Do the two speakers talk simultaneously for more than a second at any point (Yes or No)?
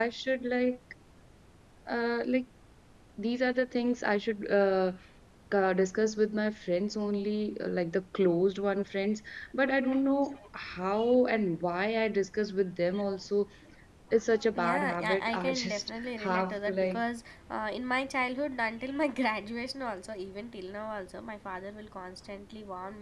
Yes